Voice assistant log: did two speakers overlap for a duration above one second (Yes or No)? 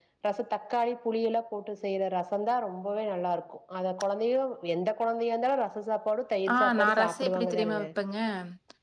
Yes